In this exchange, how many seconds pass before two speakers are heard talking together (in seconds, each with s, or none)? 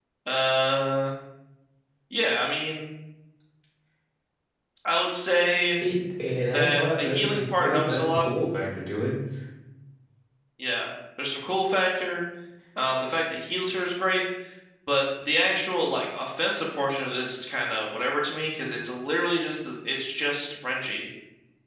6.5 s